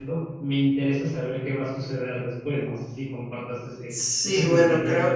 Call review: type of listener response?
taking over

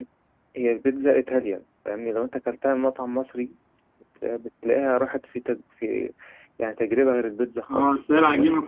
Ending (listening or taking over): taking over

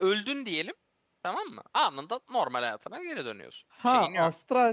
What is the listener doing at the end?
taking over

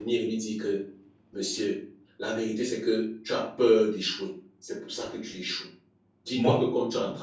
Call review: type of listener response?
listening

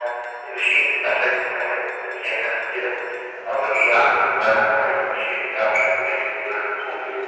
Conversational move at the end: taking over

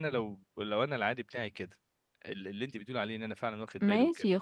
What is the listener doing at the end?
taking over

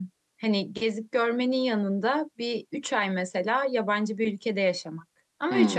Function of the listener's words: taking over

